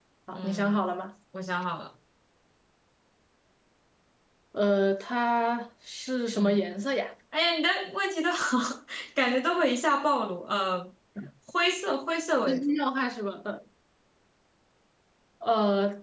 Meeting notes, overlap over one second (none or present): none